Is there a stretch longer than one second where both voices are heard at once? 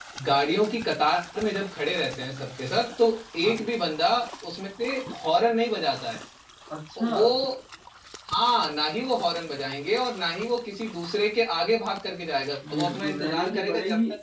Yes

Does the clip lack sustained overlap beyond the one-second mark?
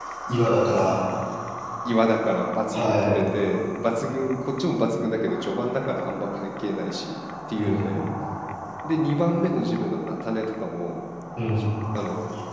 Yes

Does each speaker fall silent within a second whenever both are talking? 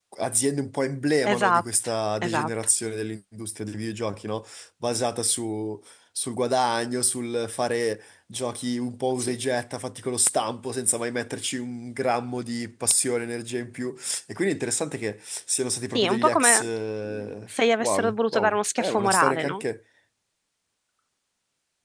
No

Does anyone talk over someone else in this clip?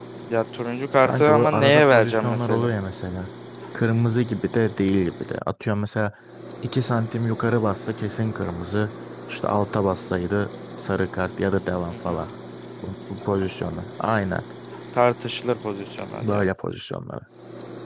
Yes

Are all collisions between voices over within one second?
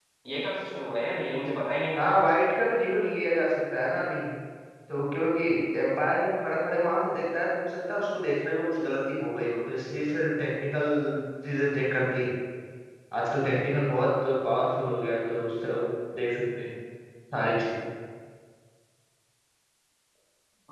Yes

